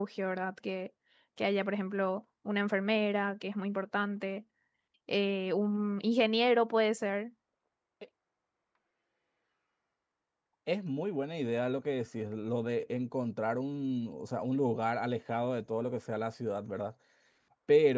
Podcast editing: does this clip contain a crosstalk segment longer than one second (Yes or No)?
No